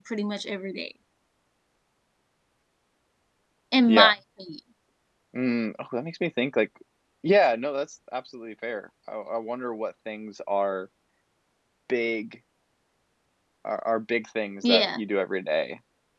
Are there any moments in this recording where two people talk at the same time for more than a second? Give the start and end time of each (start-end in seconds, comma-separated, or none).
none